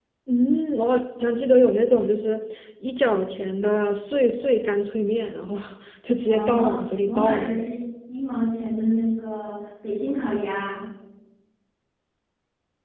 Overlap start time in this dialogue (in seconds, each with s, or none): 6.3 s